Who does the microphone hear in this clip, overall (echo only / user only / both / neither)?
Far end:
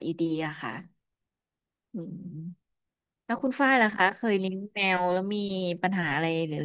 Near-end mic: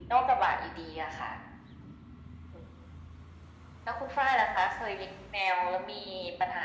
echo only